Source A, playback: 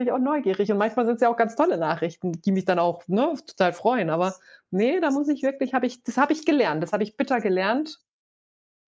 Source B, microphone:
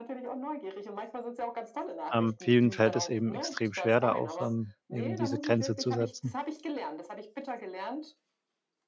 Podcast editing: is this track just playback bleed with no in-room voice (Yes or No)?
No